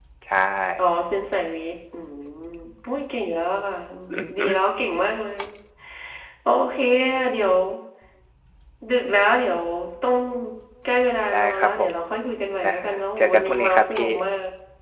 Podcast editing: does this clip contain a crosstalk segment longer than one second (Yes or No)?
Yes